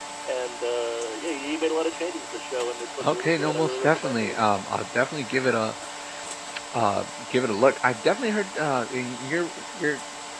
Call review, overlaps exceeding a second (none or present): present